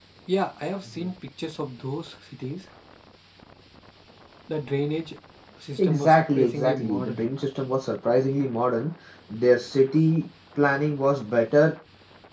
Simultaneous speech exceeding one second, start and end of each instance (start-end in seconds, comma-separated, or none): 5.8-7.2